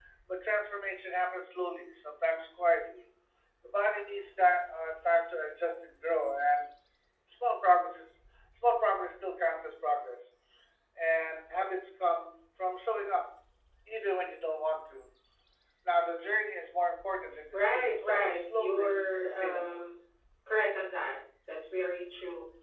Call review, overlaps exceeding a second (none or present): present